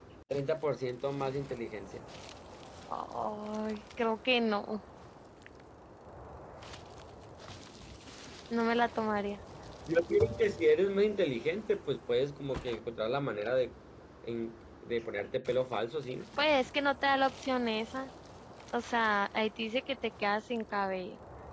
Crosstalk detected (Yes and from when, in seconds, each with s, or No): No